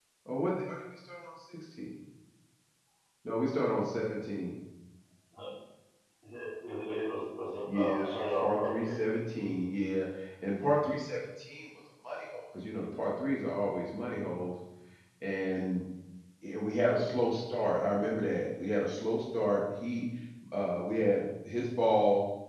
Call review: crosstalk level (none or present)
present